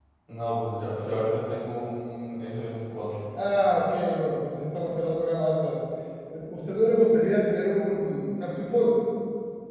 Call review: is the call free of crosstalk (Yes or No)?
Yes